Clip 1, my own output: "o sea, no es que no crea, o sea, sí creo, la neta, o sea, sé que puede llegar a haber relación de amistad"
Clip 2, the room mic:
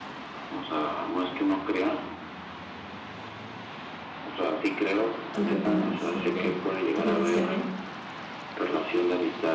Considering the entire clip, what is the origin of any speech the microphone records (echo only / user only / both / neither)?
both